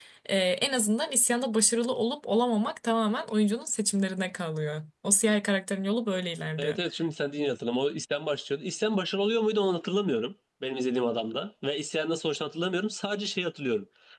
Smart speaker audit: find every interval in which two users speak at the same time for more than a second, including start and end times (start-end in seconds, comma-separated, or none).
none